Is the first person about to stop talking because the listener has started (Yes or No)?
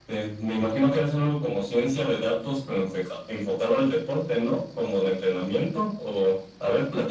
Yes